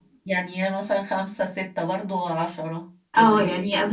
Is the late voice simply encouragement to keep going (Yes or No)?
No